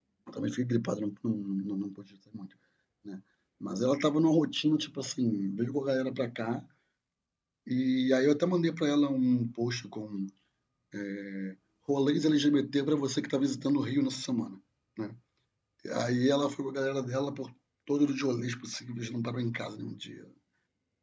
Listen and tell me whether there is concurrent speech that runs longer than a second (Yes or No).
No